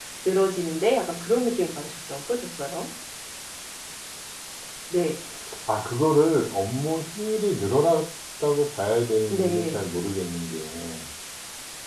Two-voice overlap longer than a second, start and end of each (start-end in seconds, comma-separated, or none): none